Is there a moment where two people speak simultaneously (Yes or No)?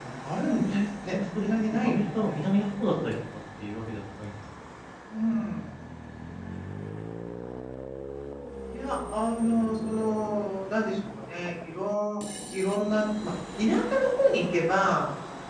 Yes